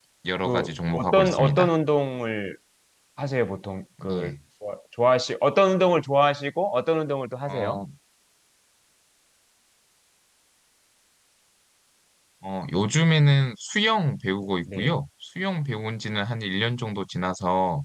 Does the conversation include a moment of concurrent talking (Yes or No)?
Yes